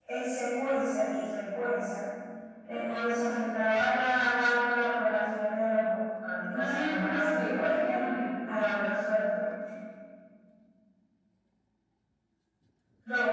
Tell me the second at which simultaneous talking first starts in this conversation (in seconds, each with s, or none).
6.5 s